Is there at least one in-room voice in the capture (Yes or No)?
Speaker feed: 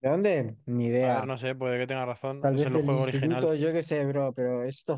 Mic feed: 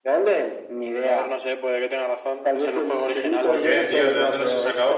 Yes